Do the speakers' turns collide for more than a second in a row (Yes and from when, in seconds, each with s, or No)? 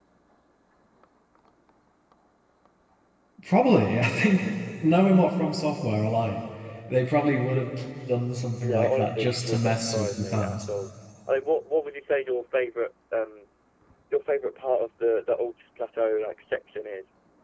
Yes, from 8.6 s